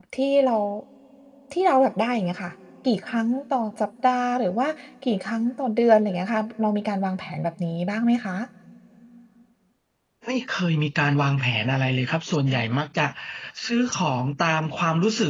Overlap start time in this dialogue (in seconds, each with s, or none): none